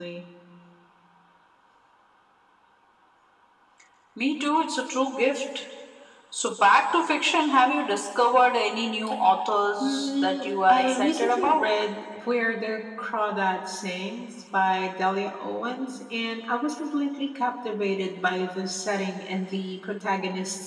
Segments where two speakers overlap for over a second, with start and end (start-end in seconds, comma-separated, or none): 9.8-11.6